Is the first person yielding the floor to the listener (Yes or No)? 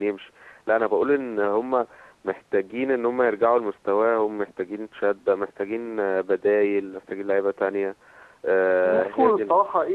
Yes